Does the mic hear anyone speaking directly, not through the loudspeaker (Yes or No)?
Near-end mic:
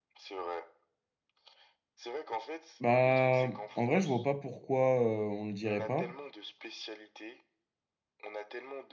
Yes